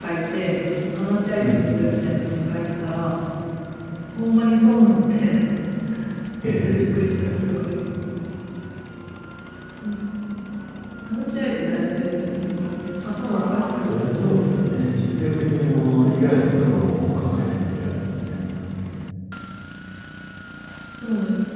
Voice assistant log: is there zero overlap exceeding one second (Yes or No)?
No